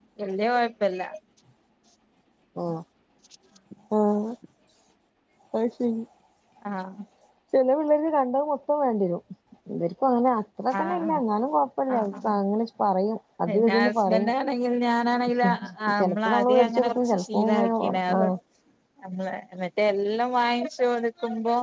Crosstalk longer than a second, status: present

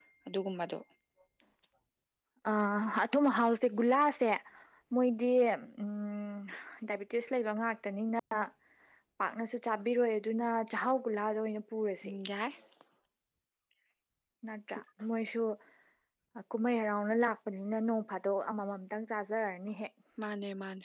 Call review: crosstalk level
none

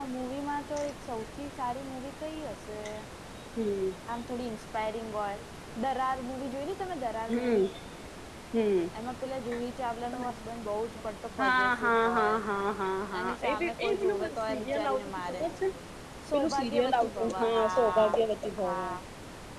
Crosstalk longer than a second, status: present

